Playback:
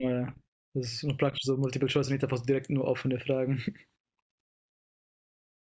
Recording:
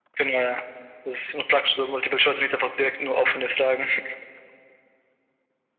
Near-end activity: none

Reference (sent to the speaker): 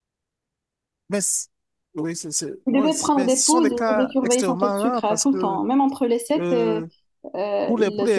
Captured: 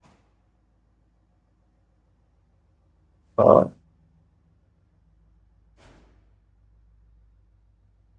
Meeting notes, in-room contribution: present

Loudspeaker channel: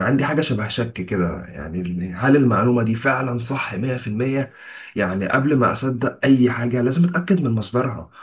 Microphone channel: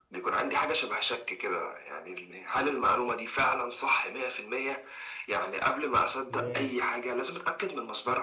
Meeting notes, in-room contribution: present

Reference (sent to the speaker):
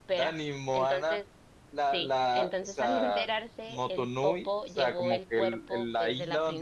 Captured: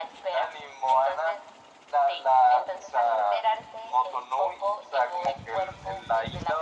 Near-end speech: none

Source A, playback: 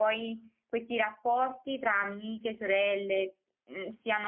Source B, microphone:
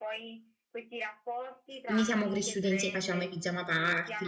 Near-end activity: present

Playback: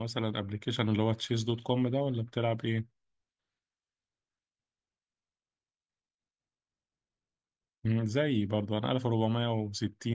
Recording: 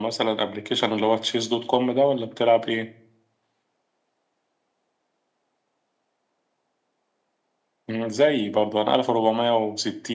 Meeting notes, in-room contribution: none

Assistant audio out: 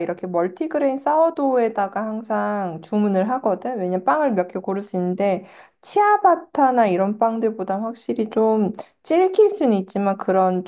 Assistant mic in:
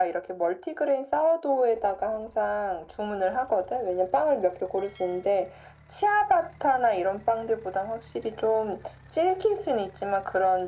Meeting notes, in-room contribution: none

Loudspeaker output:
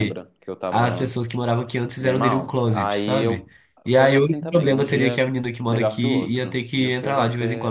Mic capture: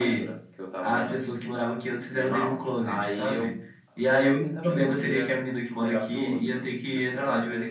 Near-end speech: none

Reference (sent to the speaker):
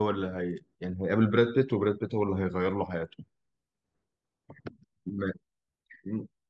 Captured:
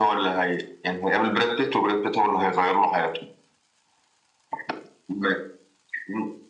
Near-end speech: none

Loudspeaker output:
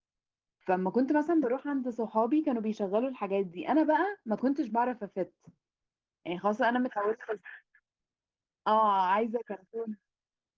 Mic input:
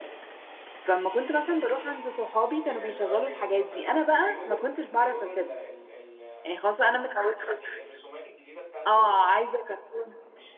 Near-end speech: present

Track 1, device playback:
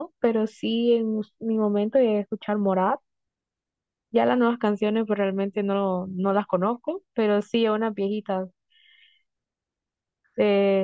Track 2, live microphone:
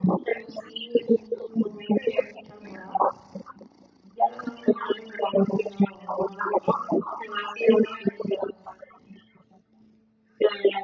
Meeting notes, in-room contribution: none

